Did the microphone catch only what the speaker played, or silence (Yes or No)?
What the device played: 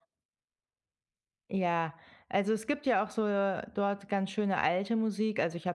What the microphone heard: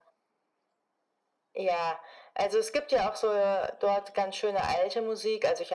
Yes